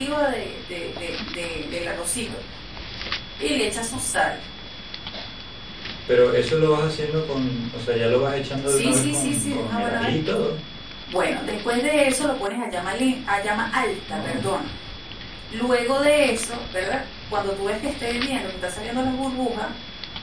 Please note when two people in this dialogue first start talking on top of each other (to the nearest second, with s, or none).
9 s